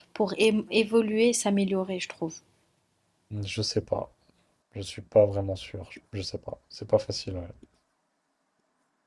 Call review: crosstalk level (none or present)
none